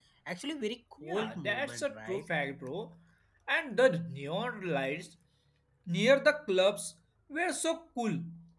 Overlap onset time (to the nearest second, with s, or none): 1 s